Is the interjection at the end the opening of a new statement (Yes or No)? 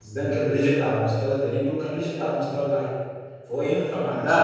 Yes